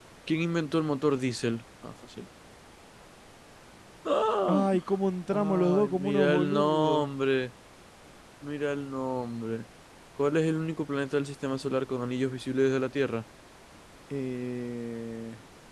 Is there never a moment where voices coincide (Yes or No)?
No